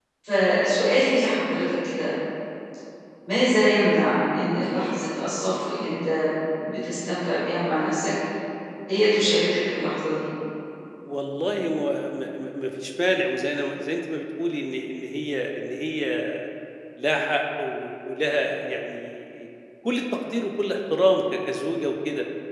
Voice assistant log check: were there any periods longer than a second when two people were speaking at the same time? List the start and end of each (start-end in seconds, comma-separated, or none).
none